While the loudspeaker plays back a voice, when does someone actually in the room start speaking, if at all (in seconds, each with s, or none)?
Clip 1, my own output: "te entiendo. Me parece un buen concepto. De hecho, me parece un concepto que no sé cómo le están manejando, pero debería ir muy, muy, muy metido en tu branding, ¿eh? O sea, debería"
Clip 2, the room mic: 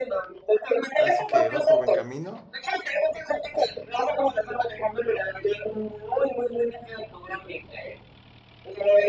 0.9 s